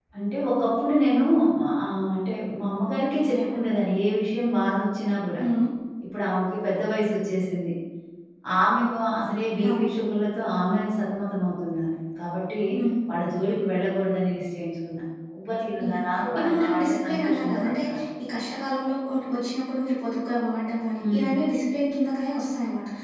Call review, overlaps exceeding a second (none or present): present